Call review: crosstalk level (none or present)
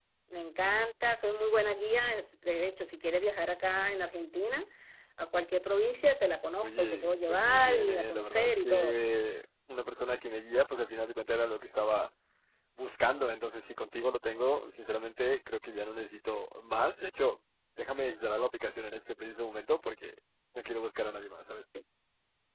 present